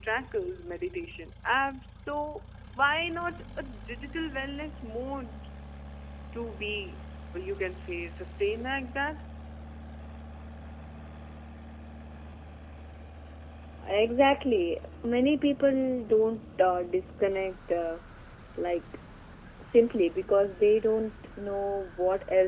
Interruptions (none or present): none